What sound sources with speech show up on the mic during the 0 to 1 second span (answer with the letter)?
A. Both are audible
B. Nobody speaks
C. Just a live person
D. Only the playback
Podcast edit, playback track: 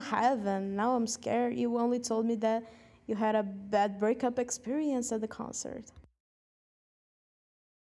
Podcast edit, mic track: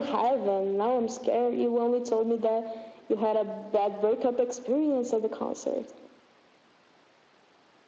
D